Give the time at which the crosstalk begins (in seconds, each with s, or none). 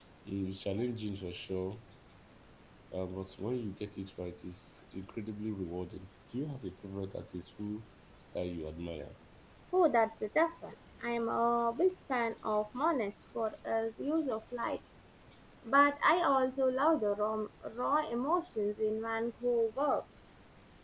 none